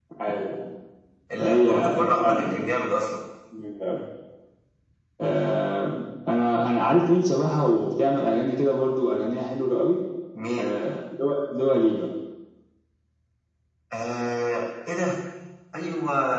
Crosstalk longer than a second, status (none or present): present